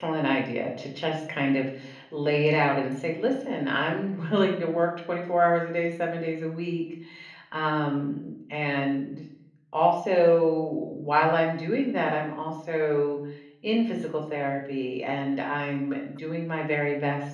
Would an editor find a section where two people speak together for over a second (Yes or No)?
No